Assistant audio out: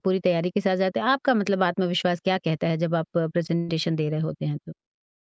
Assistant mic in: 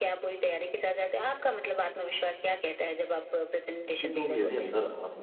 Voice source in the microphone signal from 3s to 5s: both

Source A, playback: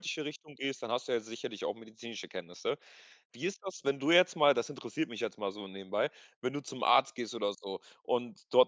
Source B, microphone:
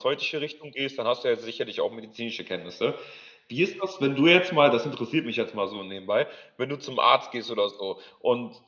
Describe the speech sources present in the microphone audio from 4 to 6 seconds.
echo only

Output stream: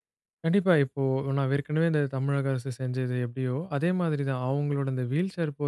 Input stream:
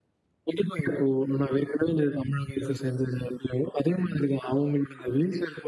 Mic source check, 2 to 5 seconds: echo only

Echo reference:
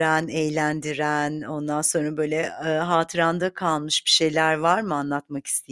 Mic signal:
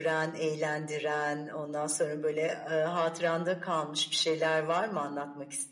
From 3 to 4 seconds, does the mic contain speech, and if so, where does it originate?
echo only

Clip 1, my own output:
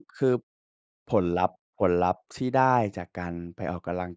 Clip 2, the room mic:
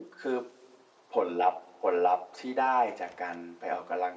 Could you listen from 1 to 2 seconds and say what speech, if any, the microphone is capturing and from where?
echo only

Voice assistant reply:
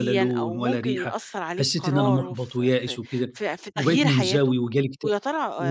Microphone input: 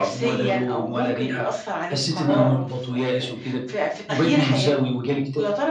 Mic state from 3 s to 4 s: echo only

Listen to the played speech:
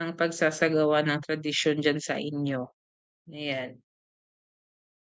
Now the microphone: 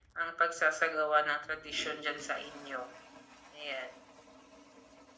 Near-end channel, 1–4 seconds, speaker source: echo only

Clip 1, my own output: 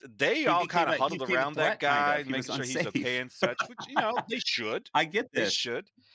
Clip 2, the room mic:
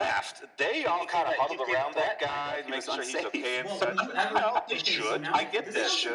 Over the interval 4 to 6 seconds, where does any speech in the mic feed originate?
both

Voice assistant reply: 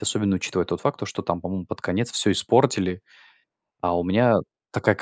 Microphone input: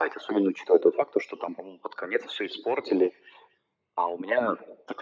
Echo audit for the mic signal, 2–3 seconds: echo only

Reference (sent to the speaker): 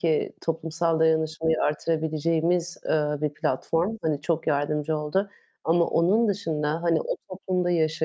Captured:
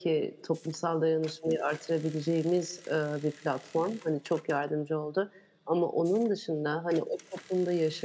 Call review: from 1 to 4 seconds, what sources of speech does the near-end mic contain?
echo only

